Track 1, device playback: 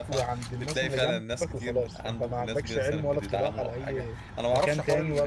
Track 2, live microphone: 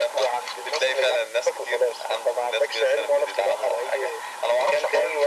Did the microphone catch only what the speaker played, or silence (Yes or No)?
Yes